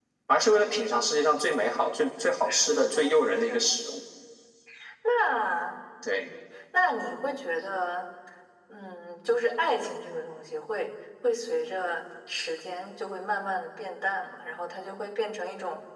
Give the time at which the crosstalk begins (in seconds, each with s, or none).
2.5 s